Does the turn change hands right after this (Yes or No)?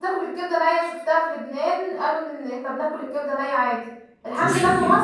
No